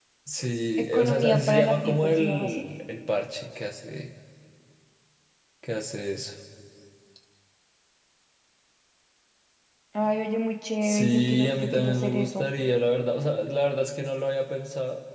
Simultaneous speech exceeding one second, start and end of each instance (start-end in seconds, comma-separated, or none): 0.8-2.7, 10.8-12.5